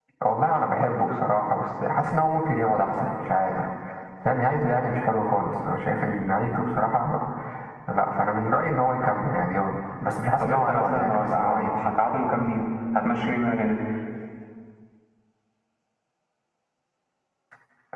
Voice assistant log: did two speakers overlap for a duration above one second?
Yes, from 10.4 s

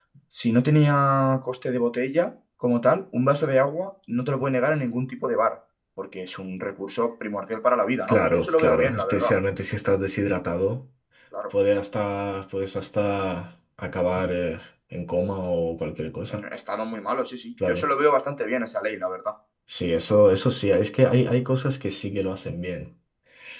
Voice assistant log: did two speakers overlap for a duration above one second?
Yes, from 8.1 s

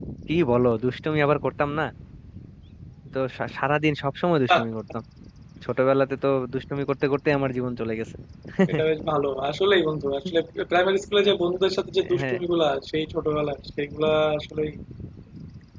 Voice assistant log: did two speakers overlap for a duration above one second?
No

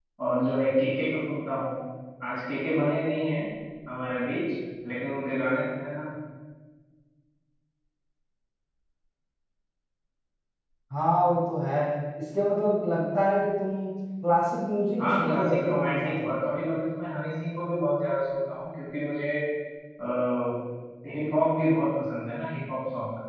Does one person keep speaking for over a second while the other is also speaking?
Yes, from 15.0 s

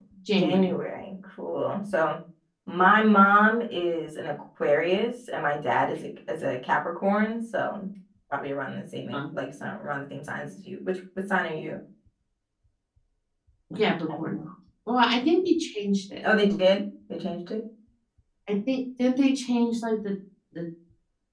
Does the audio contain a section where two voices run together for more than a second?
No

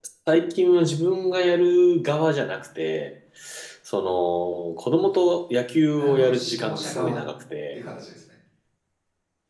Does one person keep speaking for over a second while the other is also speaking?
Yes, from 6.0 s

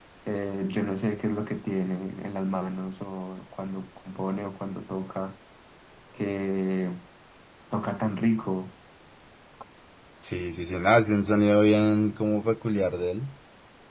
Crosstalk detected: No

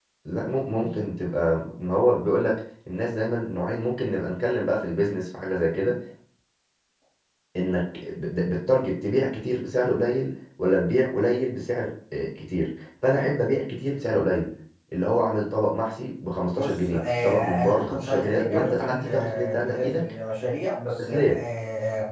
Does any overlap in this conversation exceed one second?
Yes, from 16.5 s

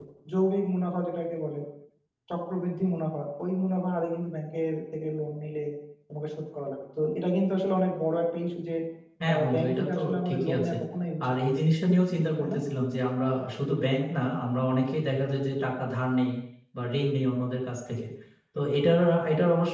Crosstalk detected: Yes, from 9.5 s

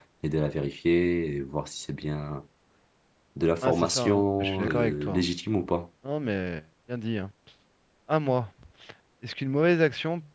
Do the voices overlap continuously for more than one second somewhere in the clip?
Yes, from 3.6 s

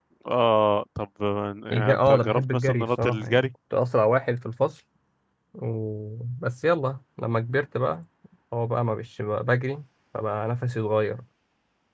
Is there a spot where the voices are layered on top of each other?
Yes, from 1.7 s

